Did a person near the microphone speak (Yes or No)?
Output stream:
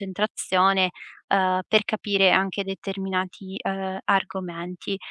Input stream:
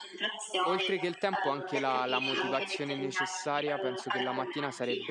Yes